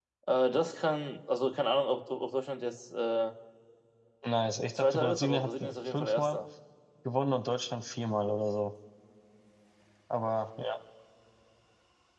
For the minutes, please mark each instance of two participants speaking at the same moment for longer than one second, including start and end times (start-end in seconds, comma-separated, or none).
4.8-6.4